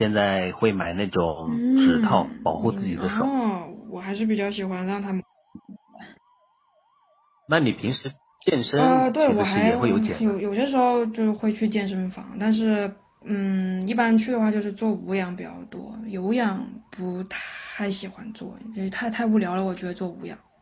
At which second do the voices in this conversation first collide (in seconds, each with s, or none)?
1.5 s